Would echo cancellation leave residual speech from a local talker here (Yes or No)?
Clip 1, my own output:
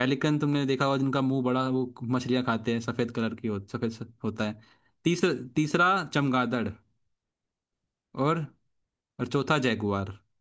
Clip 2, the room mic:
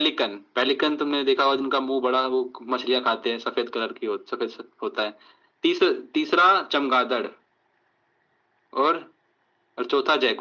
No